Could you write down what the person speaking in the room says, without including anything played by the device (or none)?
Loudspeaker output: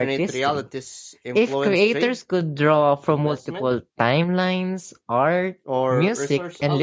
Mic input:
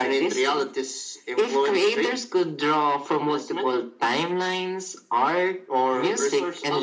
none